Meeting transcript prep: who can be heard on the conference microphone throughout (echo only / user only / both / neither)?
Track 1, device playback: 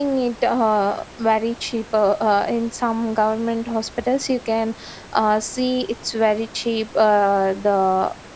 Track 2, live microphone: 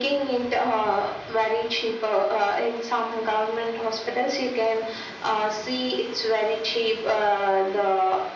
echo only